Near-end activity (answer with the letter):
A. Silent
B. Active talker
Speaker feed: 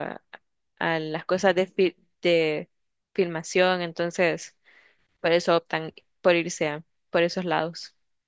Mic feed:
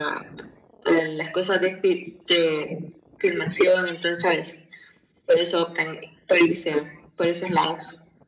A